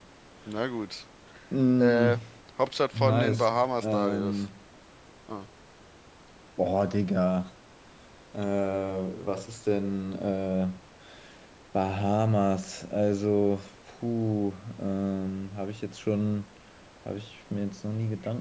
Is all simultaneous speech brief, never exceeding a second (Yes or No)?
No